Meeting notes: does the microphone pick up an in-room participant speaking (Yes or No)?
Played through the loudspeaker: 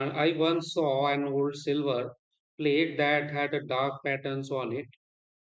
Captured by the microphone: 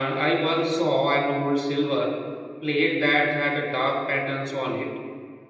No